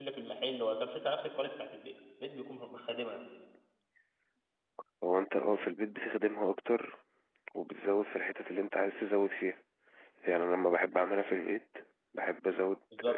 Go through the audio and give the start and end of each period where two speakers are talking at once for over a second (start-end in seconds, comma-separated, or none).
none